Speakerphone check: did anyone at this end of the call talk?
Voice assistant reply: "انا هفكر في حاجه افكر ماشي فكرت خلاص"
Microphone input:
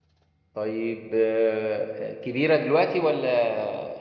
Yes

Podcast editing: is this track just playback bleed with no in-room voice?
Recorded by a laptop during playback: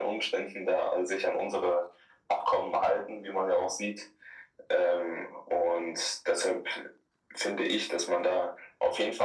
Yes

